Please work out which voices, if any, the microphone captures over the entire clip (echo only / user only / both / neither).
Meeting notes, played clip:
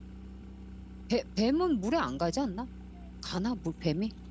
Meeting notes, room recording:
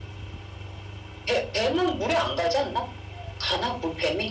echo only